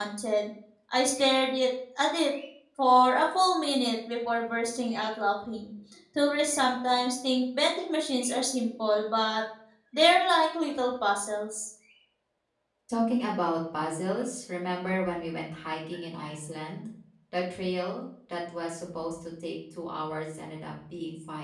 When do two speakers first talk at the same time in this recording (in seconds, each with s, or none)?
none